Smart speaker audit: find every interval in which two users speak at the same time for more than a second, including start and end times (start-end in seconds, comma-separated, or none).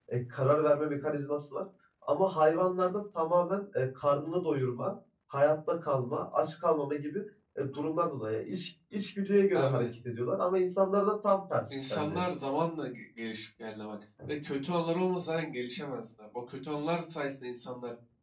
none